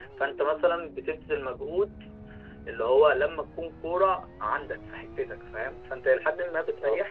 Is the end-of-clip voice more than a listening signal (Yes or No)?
No